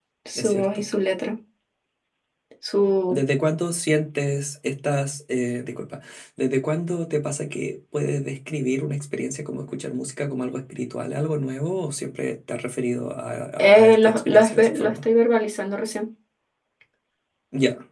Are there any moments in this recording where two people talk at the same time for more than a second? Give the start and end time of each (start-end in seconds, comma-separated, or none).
13.6-15.0